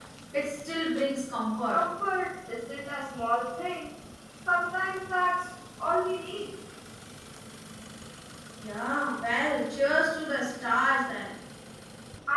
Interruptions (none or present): none